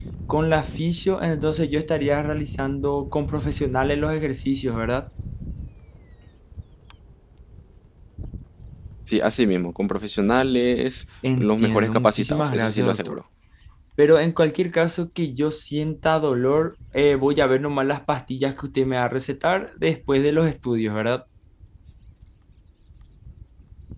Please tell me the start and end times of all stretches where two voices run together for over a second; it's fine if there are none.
11.4-13.2

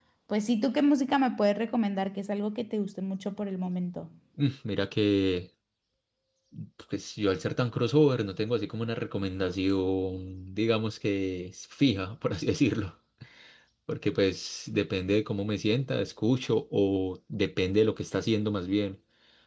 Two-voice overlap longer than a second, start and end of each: none

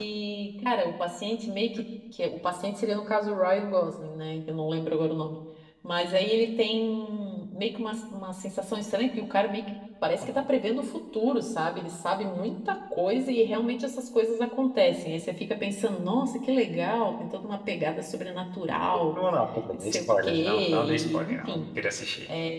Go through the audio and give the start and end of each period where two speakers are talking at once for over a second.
19.7-21.6

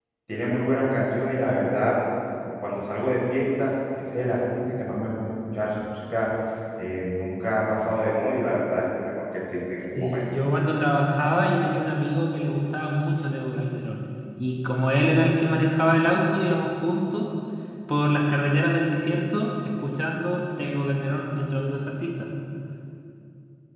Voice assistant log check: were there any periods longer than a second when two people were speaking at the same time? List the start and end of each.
none

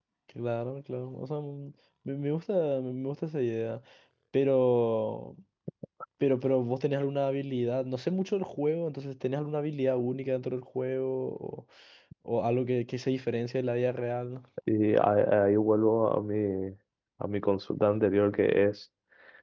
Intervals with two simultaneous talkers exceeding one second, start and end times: none

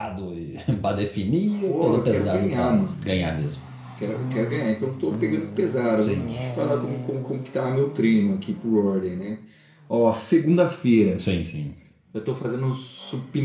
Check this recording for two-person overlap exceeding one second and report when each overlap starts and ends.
1.7-3.0

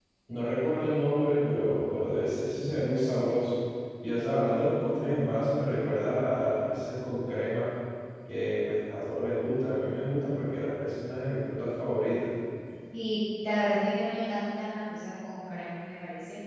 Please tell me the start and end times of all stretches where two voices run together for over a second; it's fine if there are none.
none

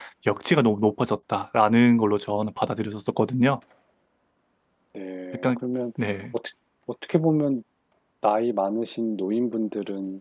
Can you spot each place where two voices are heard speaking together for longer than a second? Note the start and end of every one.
none

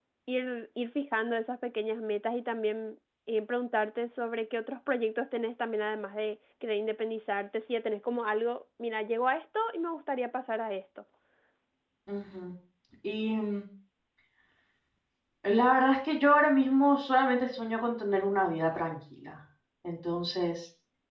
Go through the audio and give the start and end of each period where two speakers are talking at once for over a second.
none

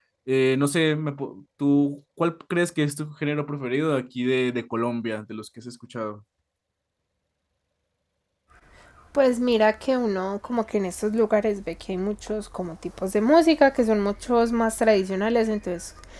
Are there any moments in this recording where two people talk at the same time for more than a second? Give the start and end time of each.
none

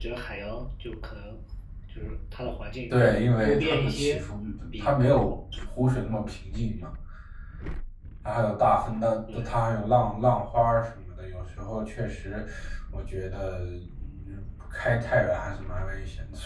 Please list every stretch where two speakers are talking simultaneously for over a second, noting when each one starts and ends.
2.9-4.2

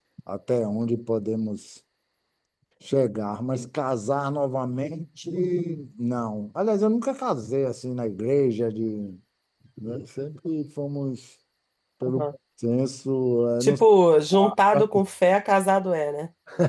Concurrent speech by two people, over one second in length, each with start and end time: none

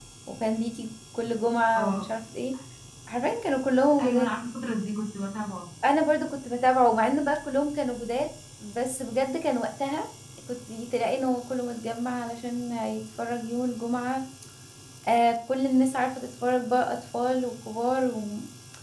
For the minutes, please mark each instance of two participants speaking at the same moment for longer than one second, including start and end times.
none

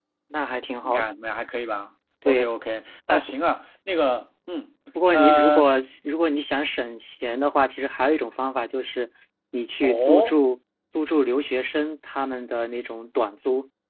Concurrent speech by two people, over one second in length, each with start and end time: none

